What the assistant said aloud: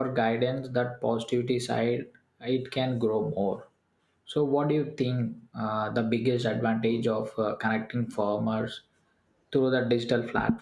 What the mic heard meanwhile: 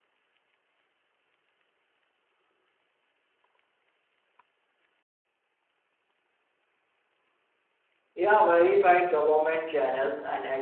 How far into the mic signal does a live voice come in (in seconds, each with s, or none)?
8.1 s